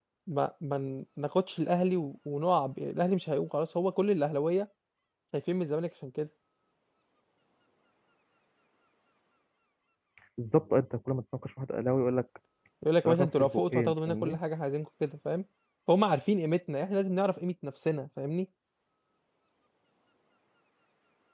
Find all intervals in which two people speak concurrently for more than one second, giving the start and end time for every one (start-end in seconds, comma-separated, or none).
13.1-14.4